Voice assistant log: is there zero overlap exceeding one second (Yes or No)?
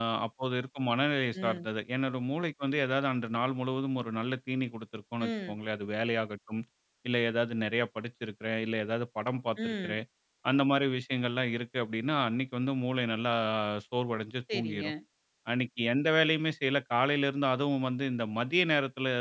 Yes